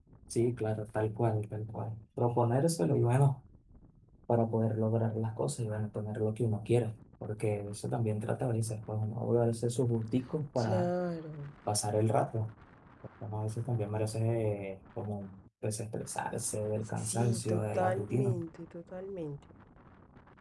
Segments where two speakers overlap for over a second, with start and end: 17.1-18.4

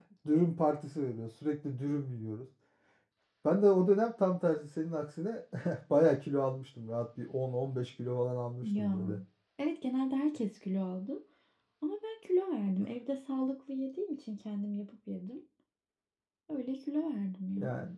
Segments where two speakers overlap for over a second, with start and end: none

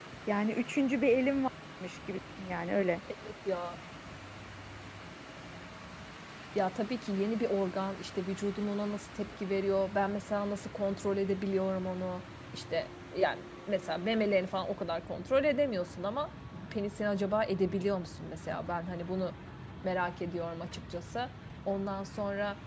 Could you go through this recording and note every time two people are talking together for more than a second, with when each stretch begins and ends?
none

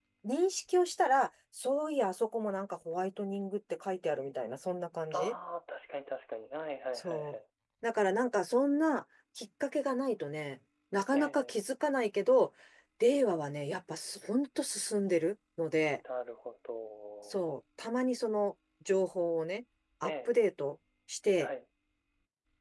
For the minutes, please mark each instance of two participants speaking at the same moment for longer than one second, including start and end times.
none

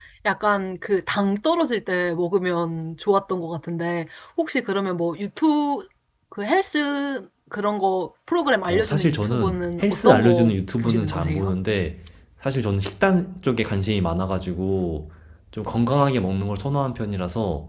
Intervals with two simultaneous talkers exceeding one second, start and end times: 8.7-11.5

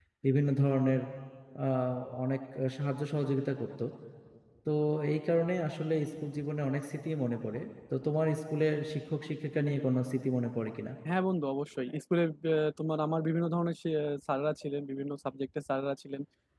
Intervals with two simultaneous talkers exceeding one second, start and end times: none

